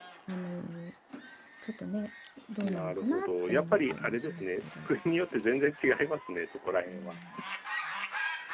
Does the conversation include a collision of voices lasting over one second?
Yes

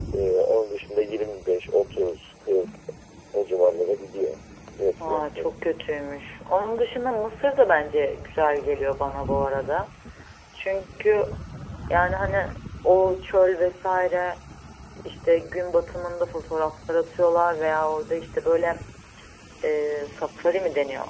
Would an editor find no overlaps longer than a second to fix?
Yes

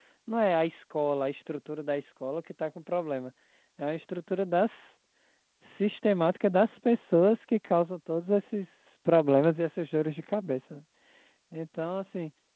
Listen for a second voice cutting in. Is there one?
No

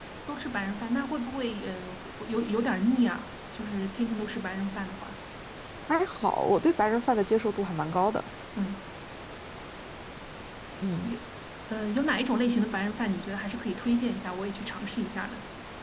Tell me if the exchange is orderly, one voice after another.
Yes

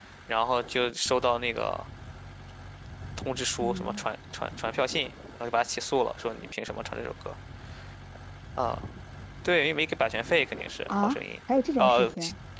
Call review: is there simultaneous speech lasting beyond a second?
No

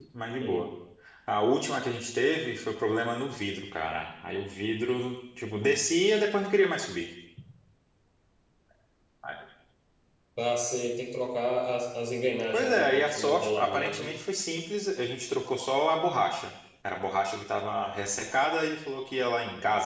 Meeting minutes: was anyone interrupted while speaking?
Yes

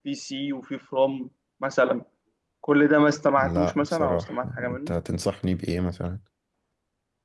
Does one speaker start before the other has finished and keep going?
Yes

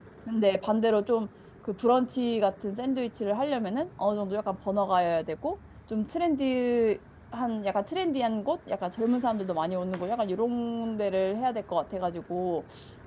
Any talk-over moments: No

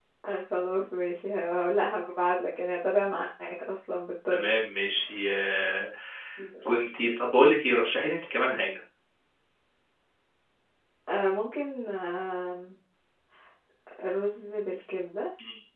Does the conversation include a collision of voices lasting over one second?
No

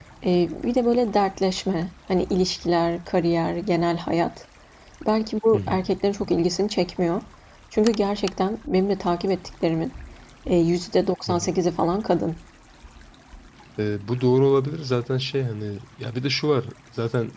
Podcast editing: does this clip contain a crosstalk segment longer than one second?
No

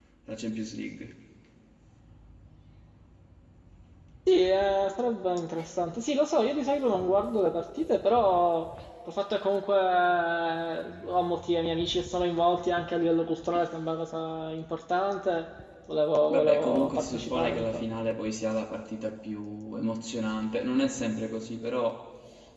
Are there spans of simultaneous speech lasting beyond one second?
Yes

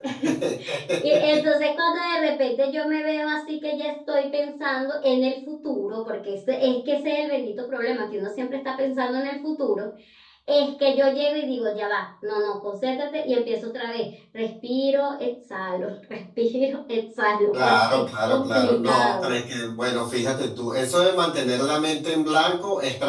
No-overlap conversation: No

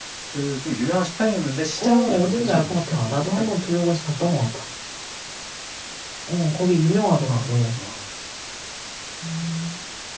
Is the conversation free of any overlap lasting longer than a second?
No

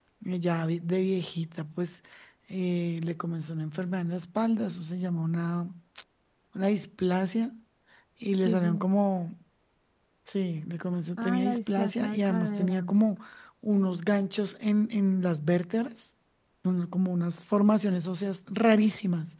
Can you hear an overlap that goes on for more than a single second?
Yes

